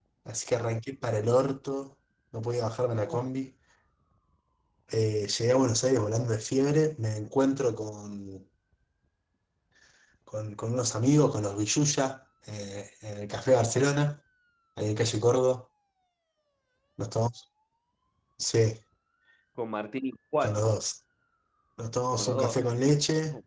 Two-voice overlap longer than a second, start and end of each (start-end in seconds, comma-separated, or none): none